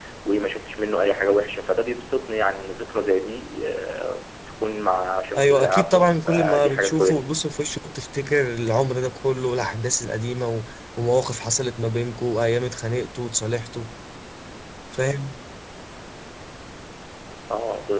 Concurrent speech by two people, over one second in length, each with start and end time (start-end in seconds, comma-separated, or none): 5.3-7.3